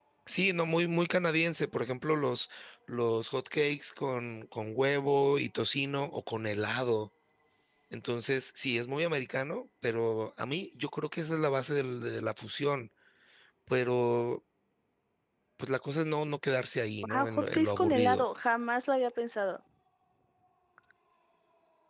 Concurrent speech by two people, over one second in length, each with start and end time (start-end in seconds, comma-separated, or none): 17.0-18.2